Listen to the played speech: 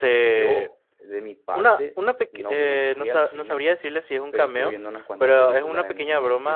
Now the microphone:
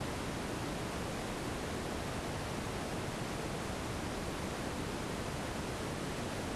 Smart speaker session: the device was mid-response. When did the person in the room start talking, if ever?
none

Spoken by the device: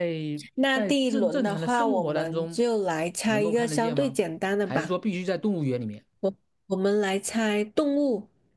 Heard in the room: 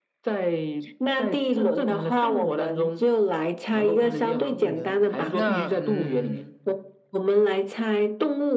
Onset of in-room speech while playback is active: 4.0 s

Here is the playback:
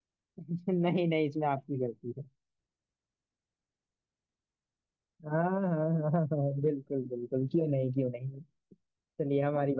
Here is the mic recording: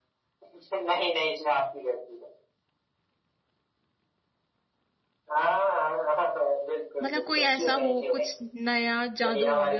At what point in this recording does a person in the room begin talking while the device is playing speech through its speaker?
7.0 s

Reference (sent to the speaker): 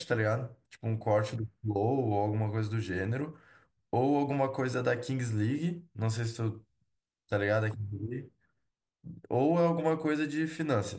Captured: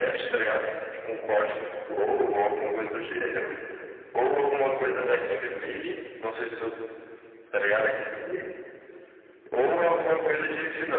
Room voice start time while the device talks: none

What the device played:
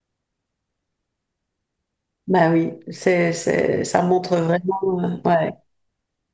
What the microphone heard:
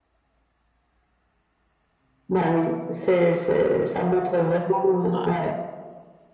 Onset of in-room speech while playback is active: 5.1 s

